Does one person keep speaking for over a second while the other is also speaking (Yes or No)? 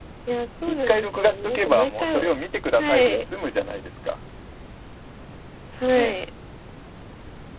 Yes